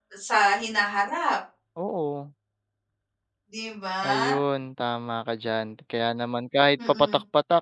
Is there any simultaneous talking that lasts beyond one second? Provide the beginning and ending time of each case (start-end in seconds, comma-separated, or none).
none